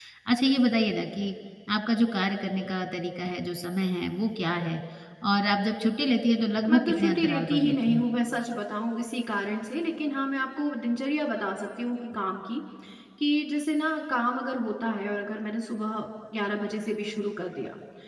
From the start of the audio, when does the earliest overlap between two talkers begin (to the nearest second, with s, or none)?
7 s